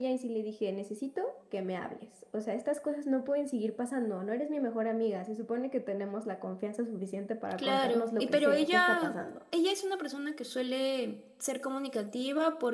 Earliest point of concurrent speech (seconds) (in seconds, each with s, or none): 7.6 s